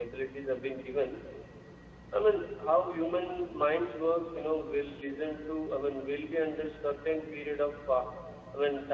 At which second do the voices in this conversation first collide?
none

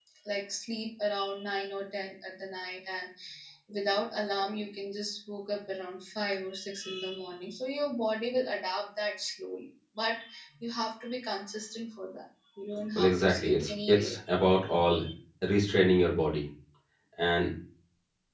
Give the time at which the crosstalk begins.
12.9 s

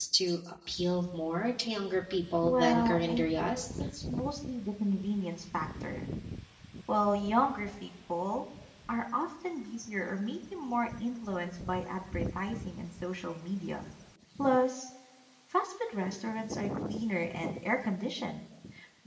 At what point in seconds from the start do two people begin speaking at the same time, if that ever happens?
2.4 s

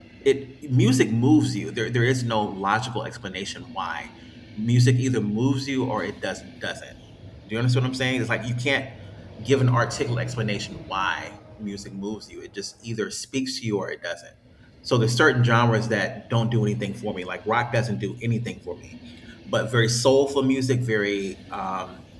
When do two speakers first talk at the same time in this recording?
none

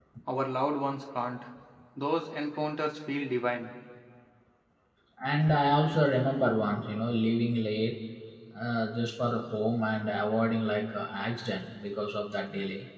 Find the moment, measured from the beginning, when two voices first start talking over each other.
none

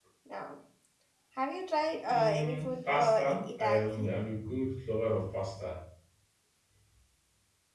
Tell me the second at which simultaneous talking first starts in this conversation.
2.1 s

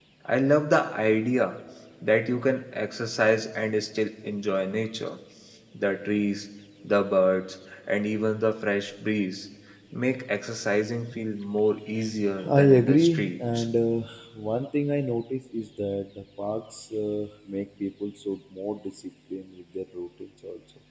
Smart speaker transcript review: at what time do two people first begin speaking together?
12.4 s

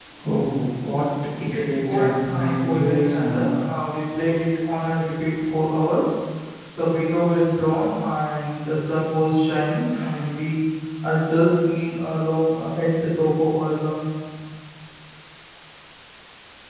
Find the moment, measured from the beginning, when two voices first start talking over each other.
1.5 s

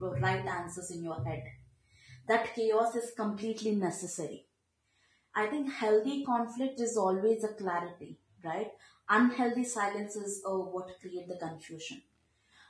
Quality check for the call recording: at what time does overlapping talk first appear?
none

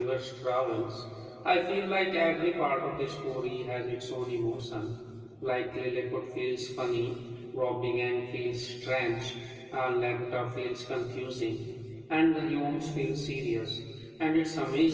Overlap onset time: none

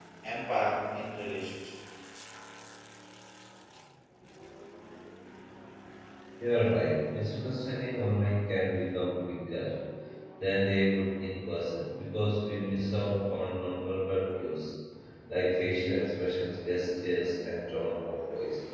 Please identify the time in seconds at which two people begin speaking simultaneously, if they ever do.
none

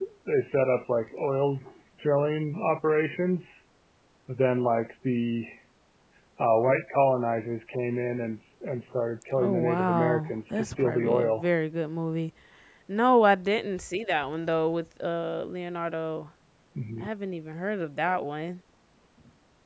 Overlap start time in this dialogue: 9.4 s

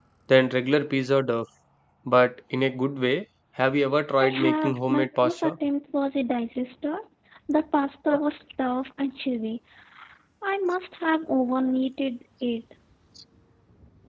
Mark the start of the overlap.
4.2 s

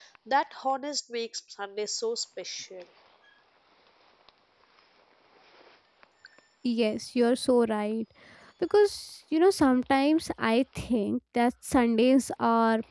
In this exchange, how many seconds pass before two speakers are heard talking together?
none

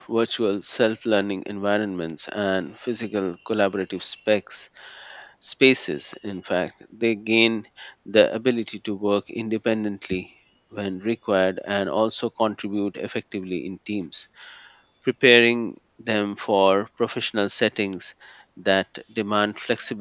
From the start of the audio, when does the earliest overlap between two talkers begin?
none

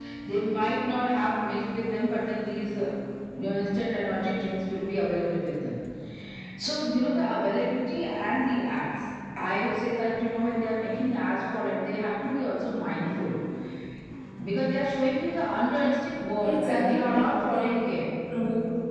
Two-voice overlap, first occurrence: 16.4 s

